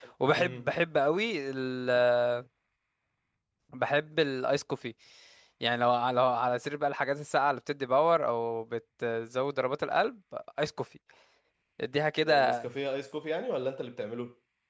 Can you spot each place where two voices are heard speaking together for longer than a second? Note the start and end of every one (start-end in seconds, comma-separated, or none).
none